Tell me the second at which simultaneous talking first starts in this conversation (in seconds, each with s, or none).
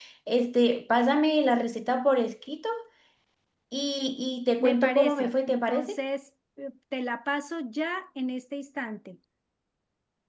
4.6 s